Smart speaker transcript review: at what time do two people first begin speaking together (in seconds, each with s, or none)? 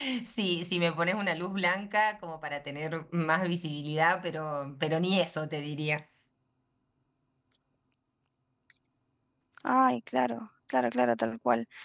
none